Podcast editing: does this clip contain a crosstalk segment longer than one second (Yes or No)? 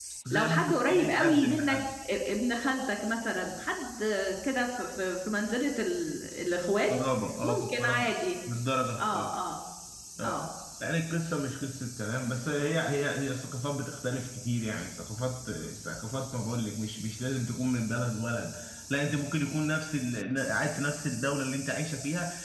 Yes